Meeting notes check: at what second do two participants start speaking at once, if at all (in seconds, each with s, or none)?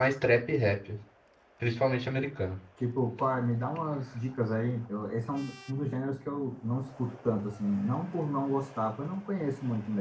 none